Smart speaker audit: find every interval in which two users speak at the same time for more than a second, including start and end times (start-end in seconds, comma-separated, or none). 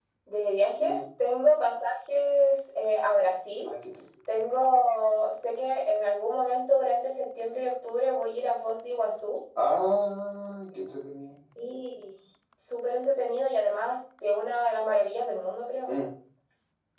none